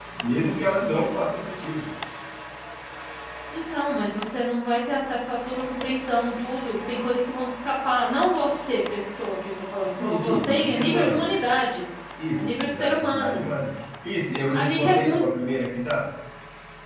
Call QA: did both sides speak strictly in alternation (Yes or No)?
No